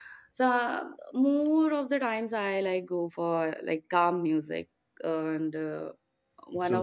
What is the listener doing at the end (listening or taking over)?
taking over